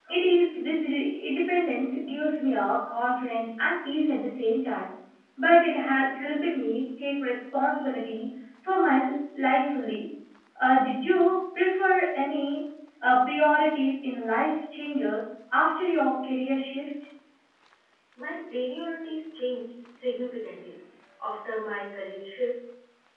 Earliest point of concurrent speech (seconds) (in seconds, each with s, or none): none